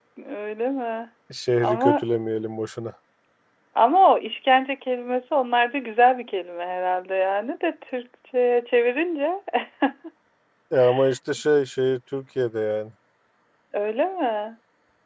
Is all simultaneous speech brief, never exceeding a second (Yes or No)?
Yes